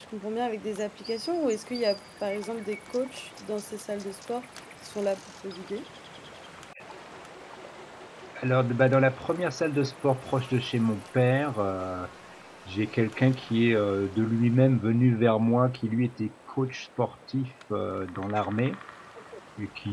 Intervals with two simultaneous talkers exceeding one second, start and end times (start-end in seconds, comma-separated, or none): none